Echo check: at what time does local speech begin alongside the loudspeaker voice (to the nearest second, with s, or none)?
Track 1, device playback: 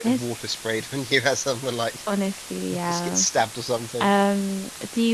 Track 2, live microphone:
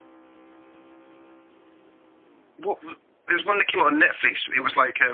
3 s